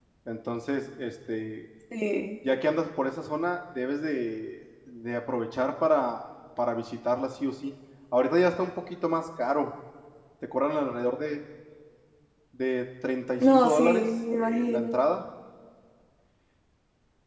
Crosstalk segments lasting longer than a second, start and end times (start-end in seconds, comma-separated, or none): 13.4-15.0